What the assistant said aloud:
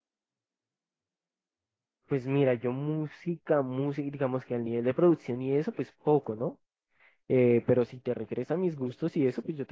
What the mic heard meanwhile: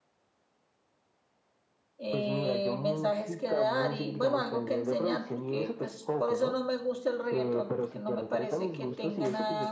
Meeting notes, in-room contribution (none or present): present